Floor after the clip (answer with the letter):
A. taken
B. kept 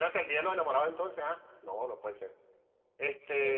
A